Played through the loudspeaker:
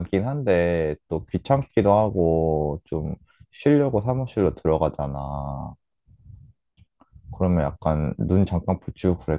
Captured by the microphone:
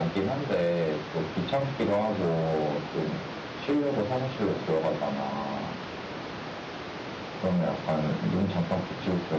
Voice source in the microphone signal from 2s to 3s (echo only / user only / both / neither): echo only